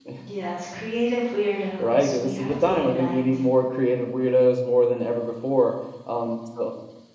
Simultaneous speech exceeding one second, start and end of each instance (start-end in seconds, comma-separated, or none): 1.8-3.2